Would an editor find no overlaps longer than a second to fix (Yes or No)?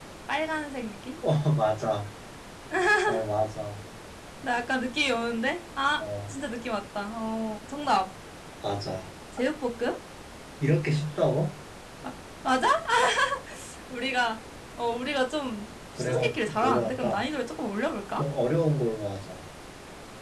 No